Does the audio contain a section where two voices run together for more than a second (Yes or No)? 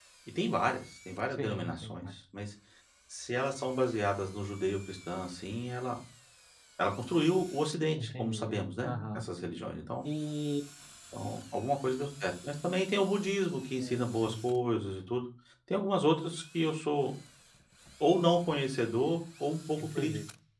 Yes